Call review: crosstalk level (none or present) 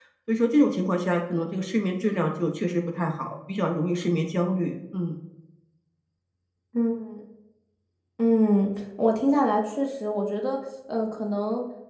none